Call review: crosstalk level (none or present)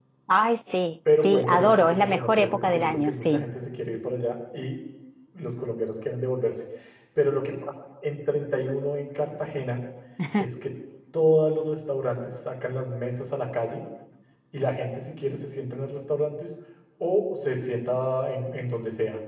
present